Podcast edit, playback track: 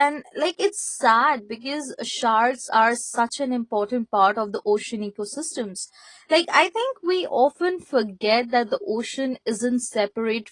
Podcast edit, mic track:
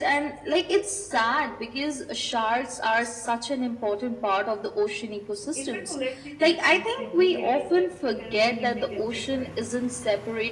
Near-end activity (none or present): present